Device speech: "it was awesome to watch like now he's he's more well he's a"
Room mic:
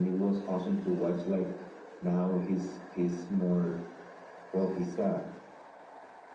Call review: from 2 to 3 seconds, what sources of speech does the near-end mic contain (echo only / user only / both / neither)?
echo only